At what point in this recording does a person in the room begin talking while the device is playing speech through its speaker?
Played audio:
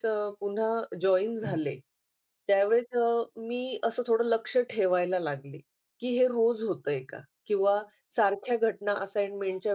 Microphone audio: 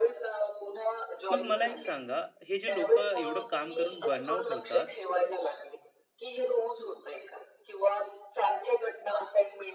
1.3 s

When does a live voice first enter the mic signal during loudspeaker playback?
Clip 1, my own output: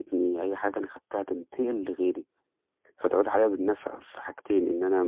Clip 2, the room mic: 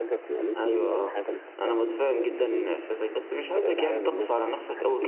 0.6 s

